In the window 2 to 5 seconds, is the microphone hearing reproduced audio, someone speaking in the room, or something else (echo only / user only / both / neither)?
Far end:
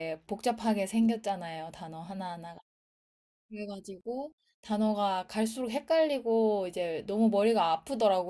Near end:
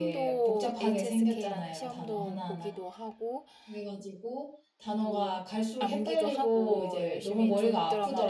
both